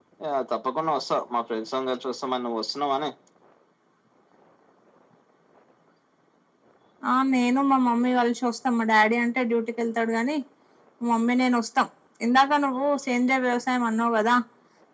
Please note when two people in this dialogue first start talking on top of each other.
none

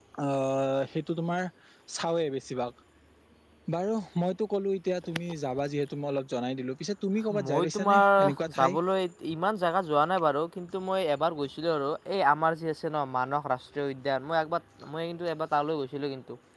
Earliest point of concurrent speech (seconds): 7 s

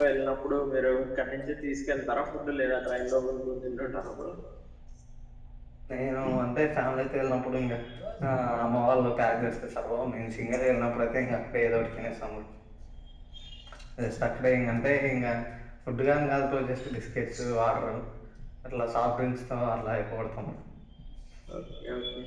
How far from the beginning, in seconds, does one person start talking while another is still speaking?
none

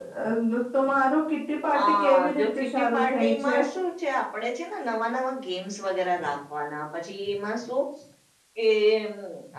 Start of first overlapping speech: 2 s

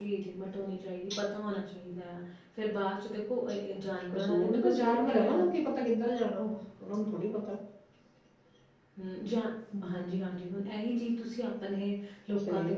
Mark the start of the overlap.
4 s

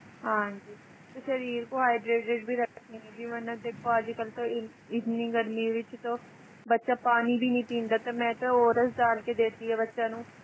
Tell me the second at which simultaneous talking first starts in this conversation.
none

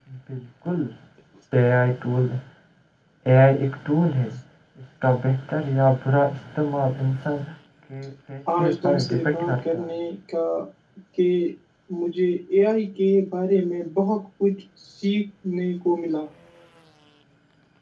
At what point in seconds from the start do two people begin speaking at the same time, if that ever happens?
9 s

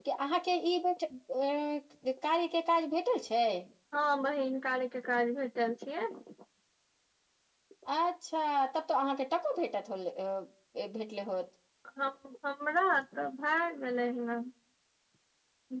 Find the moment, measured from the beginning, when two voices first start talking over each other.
none

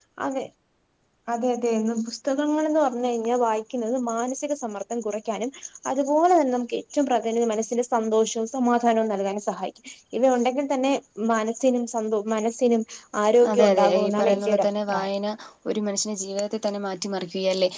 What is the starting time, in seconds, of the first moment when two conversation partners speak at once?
14 s

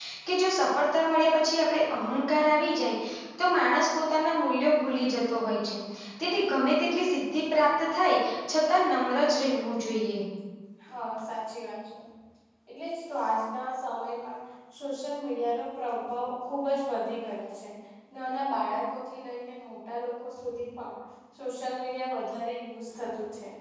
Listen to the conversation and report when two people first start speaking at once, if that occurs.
none

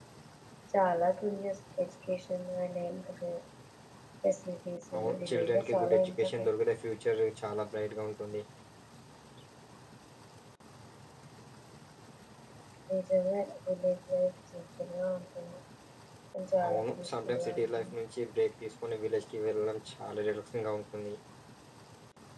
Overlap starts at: 5 s

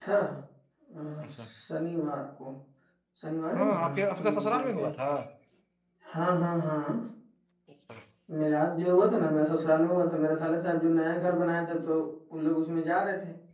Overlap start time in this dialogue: 4 s

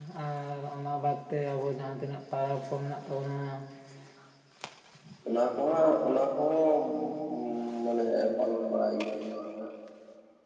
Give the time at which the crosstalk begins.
none

